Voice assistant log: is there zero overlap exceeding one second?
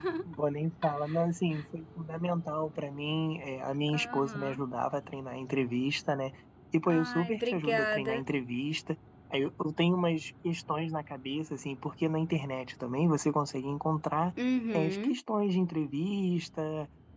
No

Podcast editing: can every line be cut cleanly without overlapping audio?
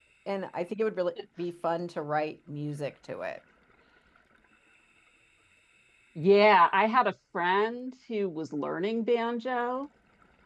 Yes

